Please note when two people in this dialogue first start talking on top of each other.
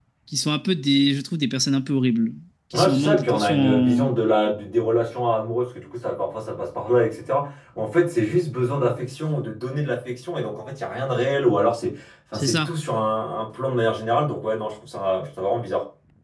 2.7 s

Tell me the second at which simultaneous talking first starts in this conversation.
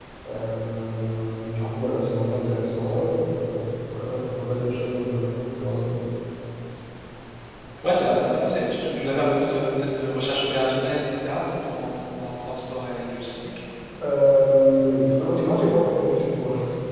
none

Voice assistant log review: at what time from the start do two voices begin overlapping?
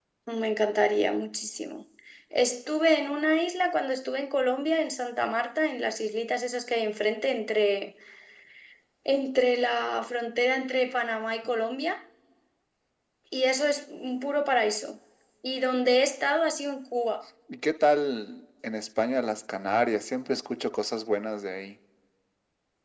none

